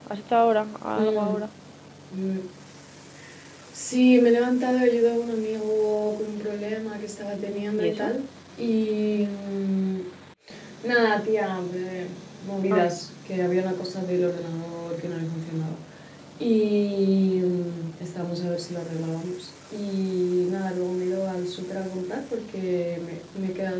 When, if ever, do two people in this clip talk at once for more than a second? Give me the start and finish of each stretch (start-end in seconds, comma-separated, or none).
none